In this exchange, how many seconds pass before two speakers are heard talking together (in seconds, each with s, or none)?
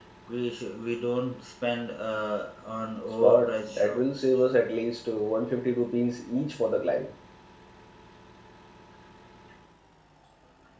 3.2 s